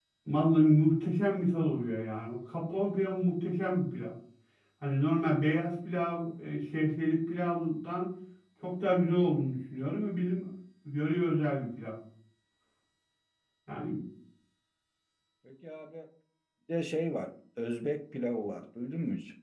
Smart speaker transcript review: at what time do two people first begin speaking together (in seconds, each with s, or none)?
none